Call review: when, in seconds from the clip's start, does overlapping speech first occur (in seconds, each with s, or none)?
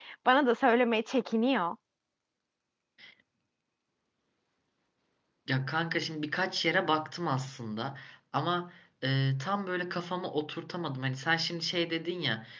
none